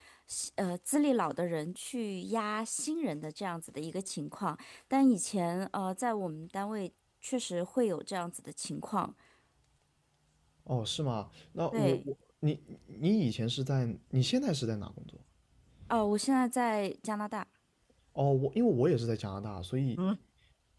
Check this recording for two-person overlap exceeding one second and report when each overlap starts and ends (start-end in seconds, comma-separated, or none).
none